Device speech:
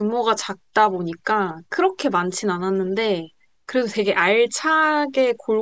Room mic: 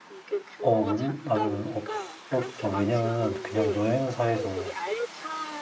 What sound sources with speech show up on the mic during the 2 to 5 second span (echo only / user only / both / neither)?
both